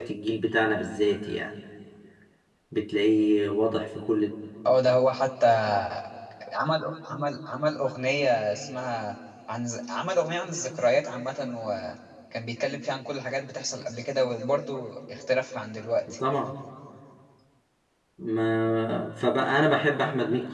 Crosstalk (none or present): none